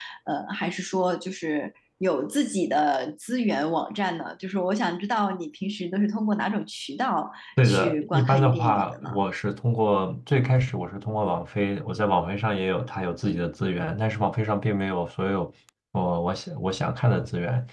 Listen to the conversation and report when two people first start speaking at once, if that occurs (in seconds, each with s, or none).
7.6 s